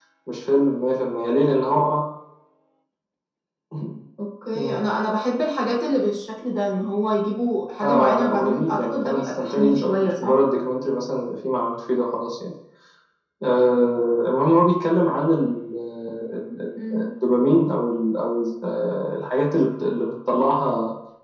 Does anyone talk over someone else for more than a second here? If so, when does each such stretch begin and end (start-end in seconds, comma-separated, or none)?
7.8-10.4